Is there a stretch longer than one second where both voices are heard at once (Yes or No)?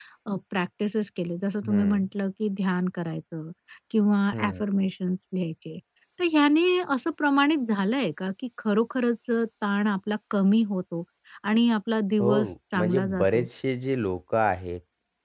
Yes